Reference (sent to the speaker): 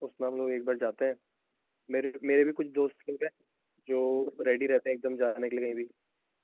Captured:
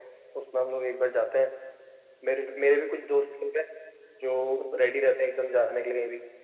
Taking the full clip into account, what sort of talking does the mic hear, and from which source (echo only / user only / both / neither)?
echo only